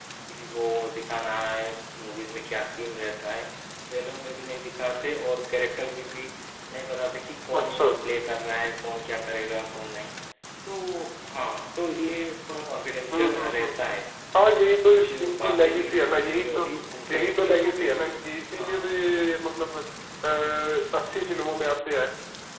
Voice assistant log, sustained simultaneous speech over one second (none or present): present